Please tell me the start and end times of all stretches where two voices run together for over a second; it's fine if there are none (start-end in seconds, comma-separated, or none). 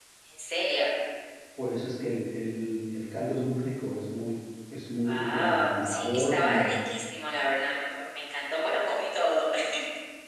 5.0-6.8